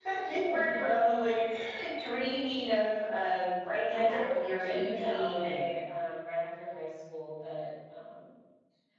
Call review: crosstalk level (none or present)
present